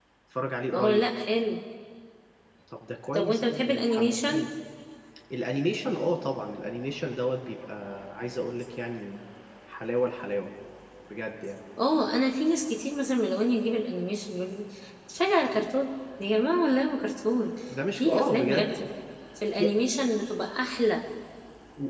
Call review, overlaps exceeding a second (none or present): present